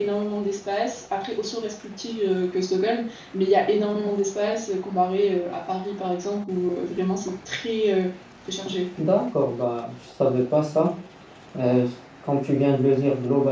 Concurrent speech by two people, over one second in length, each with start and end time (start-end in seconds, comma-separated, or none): none